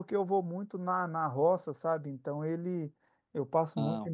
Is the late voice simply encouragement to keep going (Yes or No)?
Yes